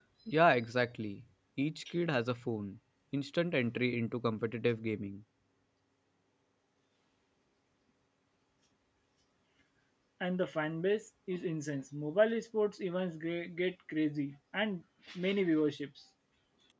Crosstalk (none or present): none